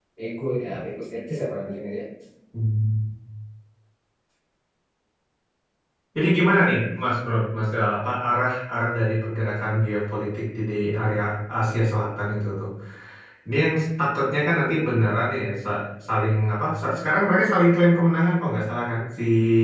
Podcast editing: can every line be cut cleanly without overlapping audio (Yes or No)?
Yes